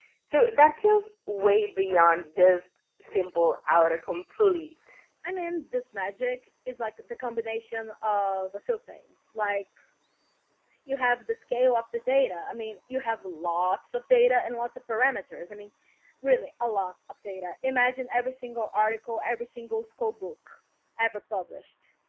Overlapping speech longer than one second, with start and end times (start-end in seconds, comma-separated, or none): none